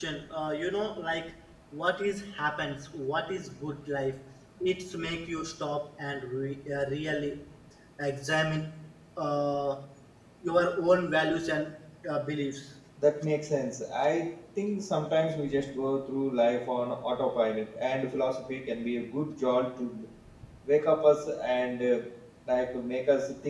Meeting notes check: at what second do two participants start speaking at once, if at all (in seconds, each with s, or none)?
none